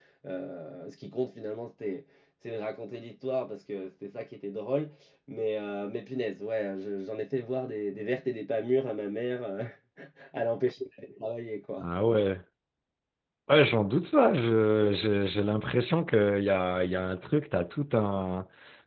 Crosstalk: none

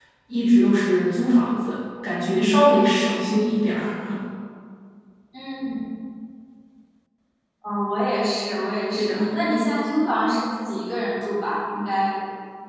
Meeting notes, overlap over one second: none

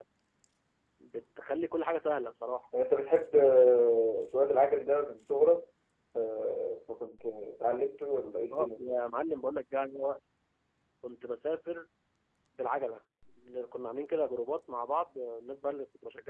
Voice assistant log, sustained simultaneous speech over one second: none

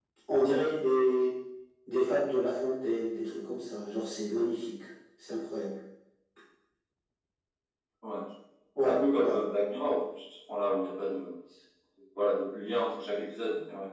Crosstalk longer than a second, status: none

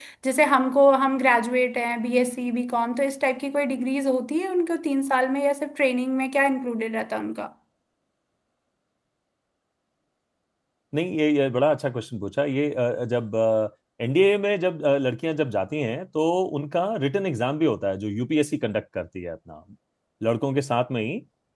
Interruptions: none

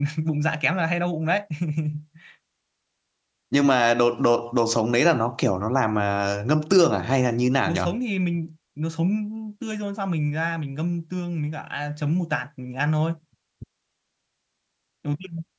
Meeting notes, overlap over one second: none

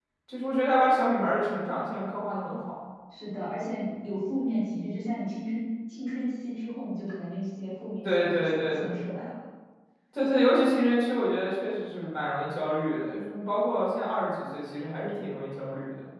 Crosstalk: present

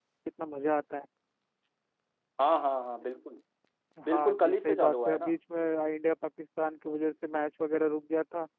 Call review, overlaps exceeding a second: present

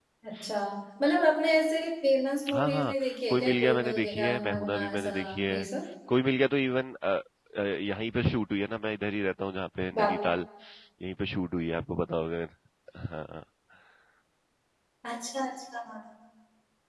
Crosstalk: present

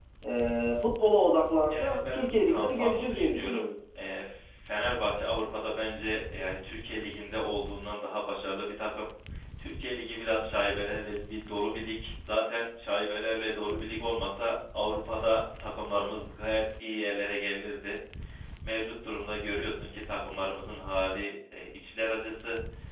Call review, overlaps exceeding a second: present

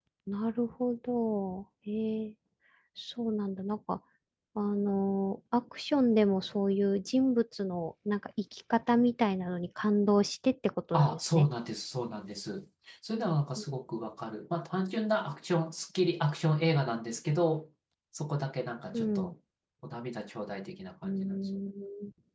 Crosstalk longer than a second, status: none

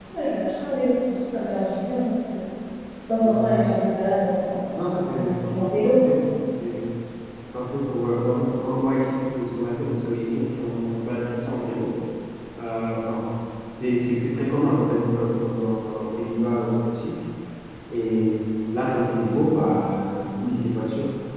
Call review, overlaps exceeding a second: present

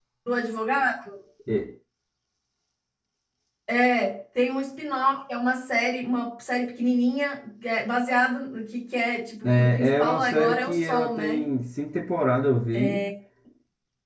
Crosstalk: present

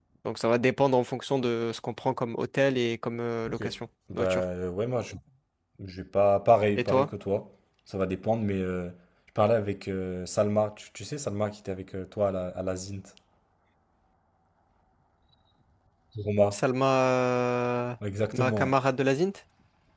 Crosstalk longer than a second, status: none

